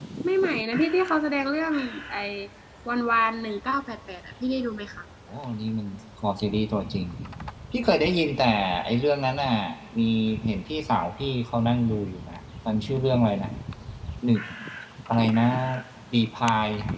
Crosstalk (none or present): none